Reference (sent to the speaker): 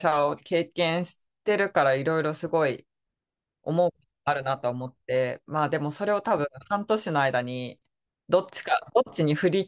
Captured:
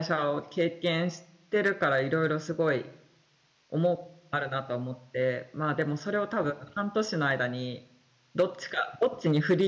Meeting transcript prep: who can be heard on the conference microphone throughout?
echo only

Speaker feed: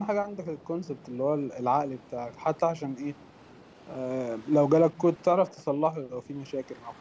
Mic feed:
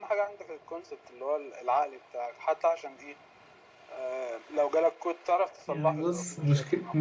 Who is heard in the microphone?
both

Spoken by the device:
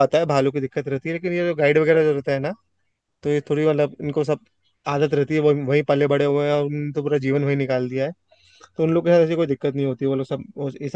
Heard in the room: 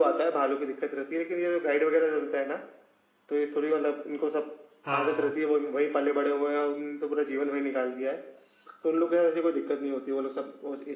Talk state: both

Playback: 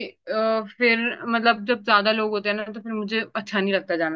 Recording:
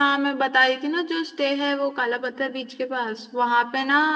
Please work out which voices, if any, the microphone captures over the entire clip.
user only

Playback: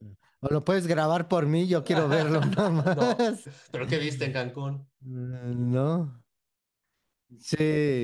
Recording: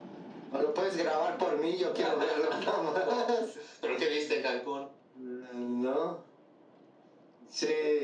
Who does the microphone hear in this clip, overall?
echo only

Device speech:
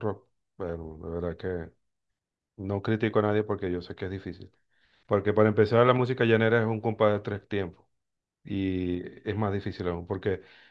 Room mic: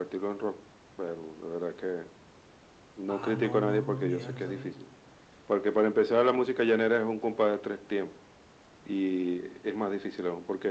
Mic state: both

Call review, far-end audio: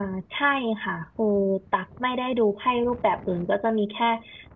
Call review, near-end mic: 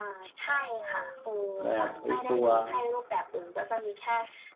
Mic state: both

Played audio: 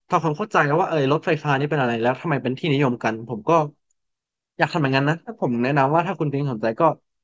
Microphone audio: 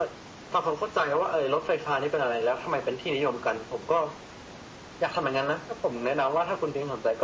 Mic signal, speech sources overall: echo only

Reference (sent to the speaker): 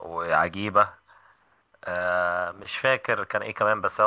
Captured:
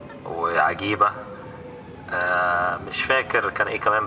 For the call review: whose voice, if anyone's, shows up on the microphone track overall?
echo only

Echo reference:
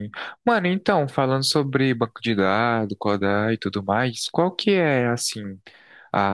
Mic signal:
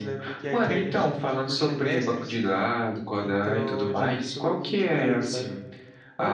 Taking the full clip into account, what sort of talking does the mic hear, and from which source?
both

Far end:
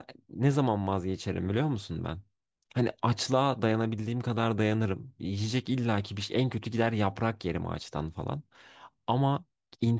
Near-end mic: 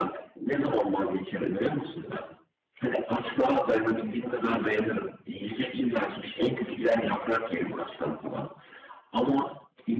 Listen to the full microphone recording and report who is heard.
echo only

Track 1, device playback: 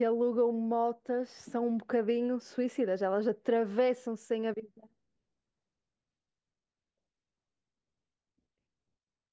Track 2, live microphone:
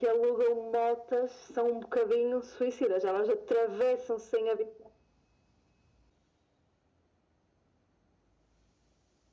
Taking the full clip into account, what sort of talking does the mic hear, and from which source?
echo only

